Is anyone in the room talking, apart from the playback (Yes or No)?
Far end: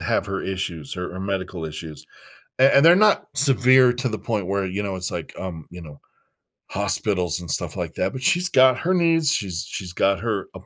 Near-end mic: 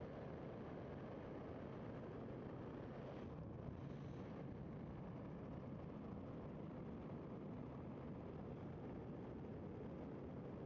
No